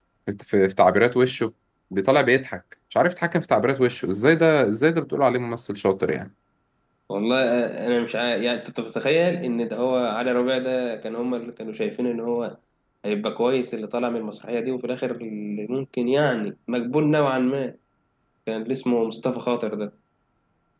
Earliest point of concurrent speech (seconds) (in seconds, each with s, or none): none